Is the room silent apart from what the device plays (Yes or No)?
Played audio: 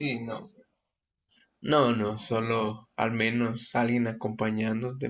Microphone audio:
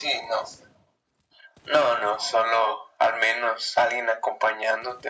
Yes